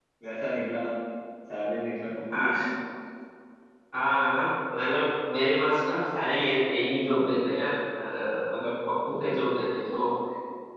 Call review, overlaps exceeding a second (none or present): none